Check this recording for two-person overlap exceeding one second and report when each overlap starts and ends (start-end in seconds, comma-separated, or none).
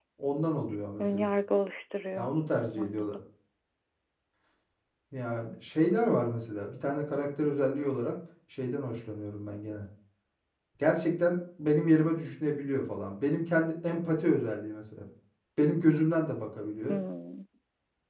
none